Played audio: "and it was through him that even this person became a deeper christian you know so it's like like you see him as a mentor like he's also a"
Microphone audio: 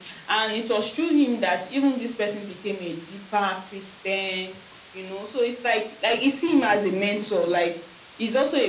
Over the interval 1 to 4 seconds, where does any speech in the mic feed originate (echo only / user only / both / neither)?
echo only